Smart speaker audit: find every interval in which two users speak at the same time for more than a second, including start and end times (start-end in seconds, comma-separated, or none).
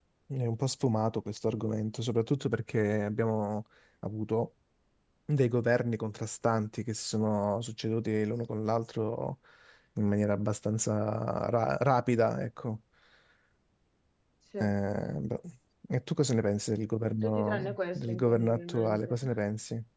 17.2-19.2